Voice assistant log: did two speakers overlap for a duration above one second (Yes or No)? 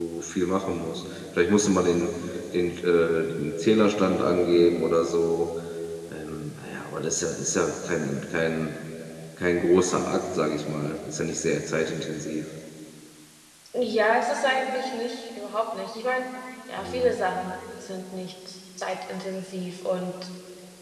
No